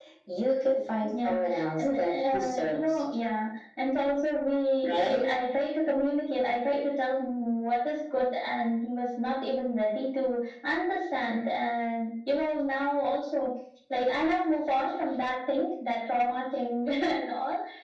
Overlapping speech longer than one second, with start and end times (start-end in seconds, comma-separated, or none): 1.2-3.1